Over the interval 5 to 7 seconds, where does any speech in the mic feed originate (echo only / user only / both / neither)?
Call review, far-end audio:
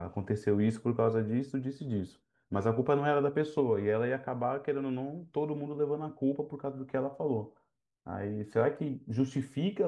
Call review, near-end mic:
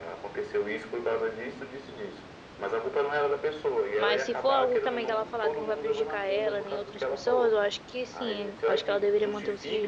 both